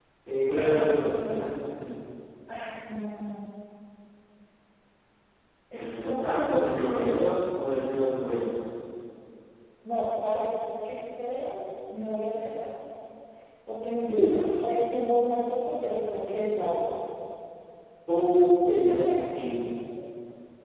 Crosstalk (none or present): present